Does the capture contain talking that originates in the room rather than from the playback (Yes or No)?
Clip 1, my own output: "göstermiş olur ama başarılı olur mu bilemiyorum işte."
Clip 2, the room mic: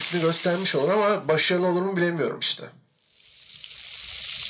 No